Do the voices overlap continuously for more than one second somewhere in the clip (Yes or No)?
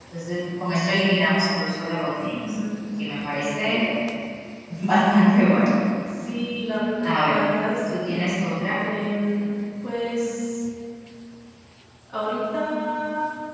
No